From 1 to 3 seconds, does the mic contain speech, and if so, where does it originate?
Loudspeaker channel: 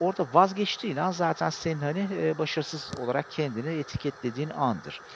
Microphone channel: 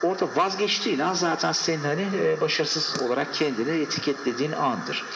echo only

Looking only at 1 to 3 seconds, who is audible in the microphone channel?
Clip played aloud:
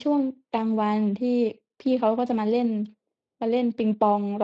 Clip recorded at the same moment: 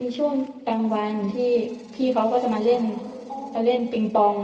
both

